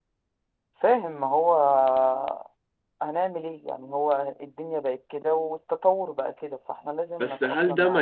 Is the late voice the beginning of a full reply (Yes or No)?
Yes